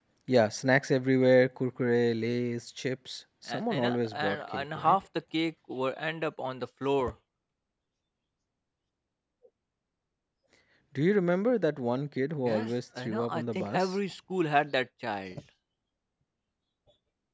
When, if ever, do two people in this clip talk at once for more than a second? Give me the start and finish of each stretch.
3.5-5.0, 12.4-13.9

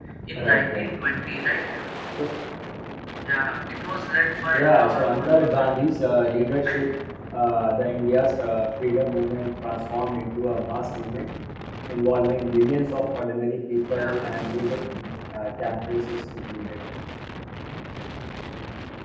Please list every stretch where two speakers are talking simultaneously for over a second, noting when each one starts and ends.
4.5-5.8

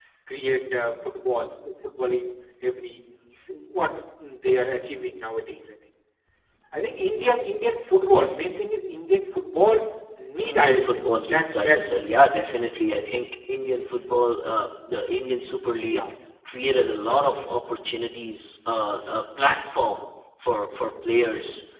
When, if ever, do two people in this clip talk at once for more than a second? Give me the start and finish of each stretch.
10.4-12.2

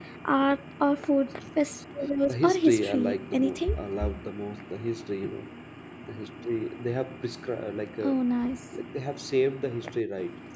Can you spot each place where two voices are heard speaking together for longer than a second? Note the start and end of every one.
2.3-3.8

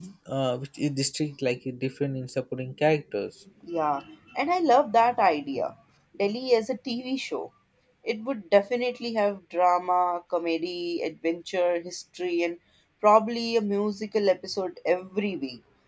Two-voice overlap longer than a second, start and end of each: none

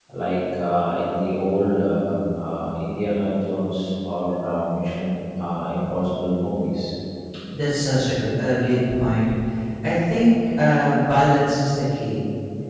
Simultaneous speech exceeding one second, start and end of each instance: none

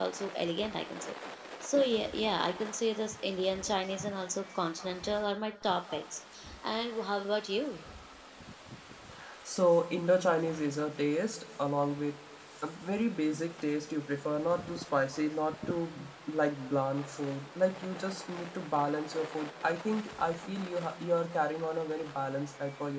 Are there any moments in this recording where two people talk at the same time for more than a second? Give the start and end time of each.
none

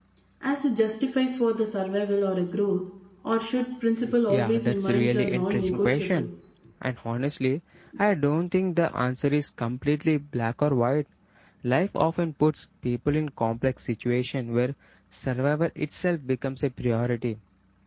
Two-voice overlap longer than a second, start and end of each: 4.3-6.3

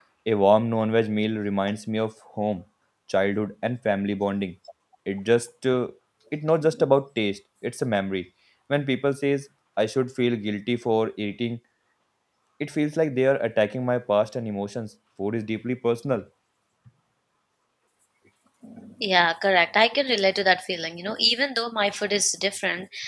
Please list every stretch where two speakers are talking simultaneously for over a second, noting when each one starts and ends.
none

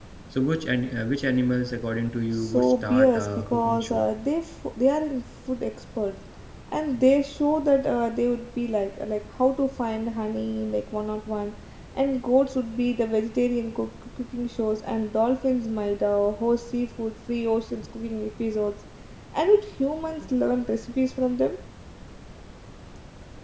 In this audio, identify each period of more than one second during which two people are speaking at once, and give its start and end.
2.3-4.0

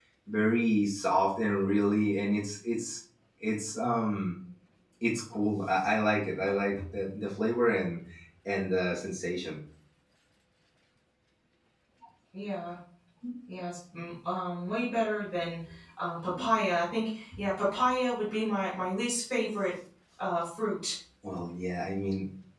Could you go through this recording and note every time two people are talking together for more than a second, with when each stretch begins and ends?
none

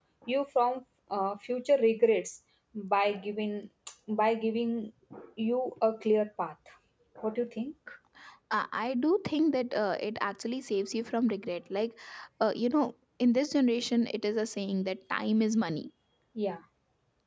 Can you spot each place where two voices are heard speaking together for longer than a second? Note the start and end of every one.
none

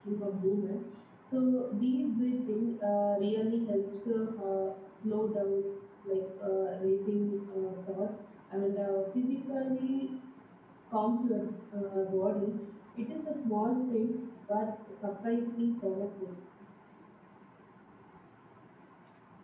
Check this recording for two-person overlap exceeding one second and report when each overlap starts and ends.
none

